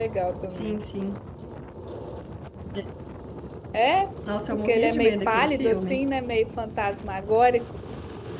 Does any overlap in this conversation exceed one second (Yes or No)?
Yes